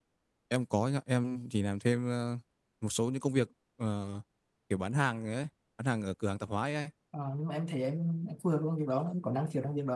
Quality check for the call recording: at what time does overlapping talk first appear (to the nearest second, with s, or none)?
none